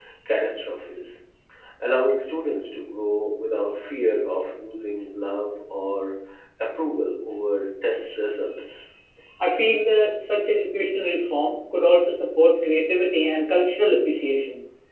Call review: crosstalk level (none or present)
none